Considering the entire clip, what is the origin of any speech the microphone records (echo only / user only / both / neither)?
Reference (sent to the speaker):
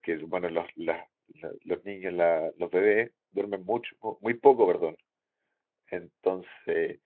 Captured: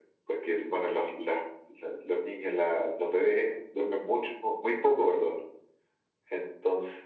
echo only